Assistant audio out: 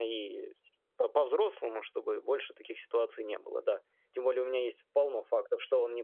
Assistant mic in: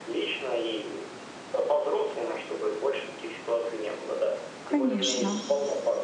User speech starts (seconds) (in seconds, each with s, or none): 4.6 s